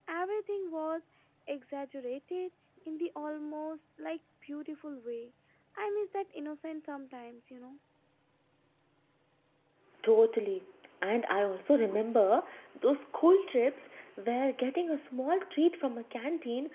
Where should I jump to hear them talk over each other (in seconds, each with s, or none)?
none